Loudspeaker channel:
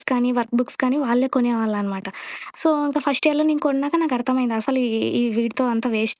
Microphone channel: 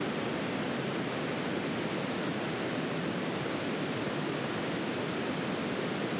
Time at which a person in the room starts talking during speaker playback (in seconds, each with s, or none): none